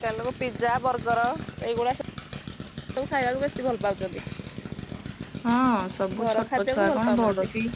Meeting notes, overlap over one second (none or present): present